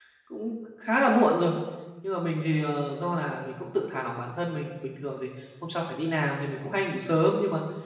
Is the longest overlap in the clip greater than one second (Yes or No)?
No